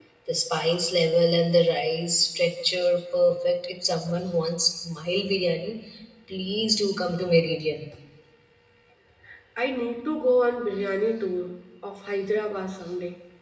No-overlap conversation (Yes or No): Yes